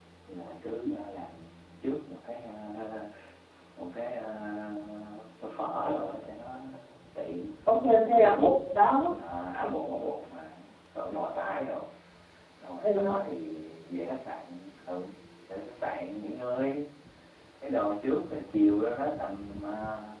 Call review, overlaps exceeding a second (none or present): none